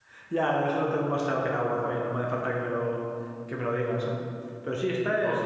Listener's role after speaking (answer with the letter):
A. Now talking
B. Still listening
B